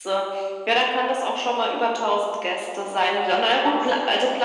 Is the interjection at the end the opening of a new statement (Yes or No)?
No